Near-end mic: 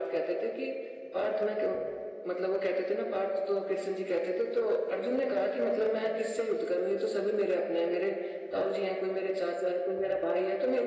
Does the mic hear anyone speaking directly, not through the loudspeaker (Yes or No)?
No